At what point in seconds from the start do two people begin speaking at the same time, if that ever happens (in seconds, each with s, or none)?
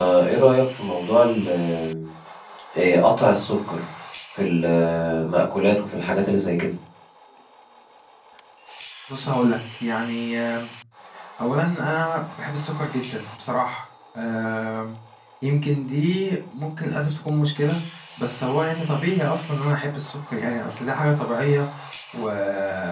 none